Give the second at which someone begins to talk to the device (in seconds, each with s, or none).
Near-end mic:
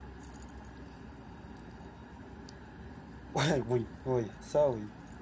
3.3 s